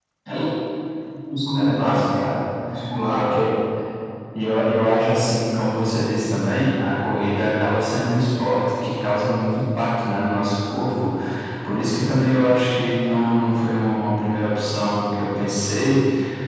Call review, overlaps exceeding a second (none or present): none